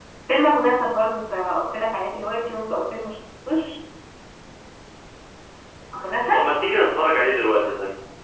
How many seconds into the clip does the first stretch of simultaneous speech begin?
none

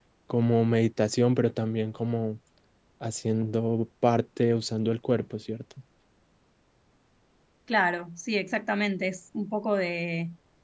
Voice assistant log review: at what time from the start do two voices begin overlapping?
none

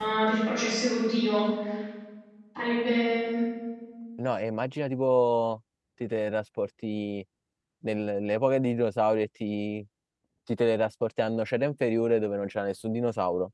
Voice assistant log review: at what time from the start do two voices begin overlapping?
none

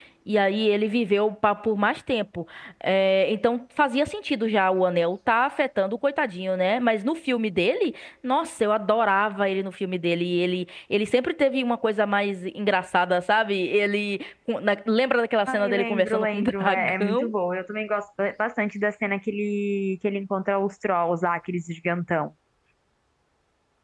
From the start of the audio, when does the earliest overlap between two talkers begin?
15.4 s

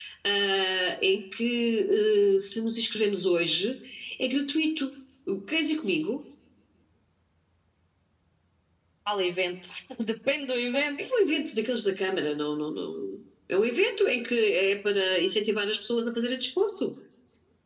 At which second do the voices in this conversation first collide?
none

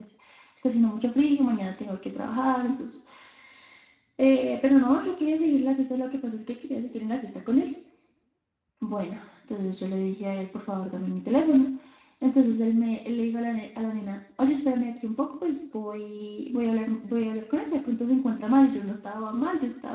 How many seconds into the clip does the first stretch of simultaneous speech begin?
none

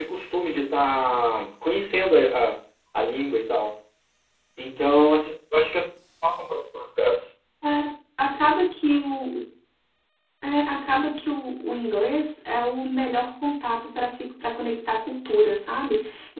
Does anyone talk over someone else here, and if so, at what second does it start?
none

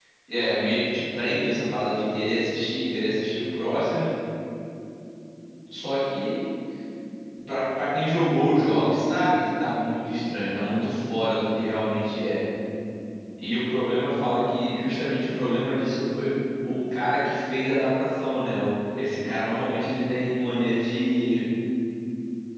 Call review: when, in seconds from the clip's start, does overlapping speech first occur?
none

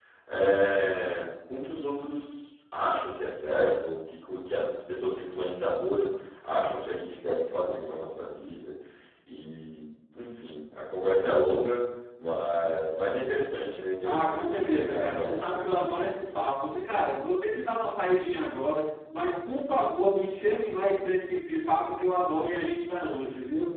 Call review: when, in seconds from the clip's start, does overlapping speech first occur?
14.0 s

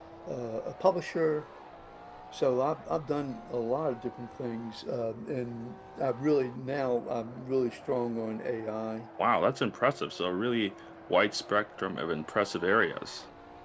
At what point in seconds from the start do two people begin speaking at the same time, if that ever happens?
none

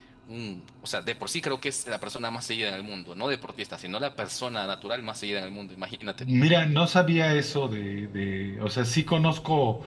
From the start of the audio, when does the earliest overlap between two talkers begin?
none

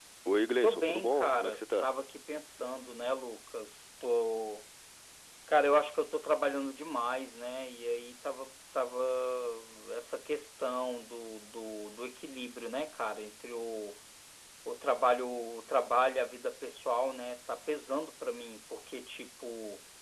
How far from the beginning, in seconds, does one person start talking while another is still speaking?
0.6 s

